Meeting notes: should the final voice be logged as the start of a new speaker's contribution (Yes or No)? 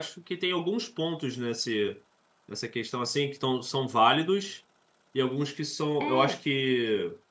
No